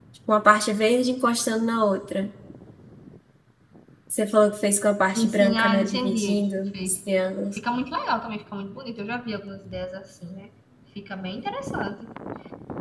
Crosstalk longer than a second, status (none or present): present